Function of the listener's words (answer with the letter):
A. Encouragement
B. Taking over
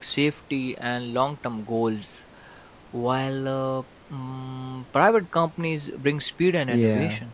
B